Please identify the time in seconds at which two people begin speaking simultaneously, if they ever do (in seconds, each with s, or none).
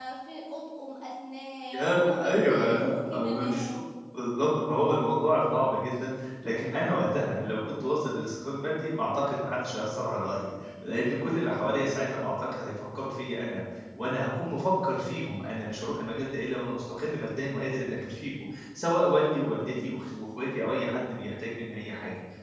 1.7 s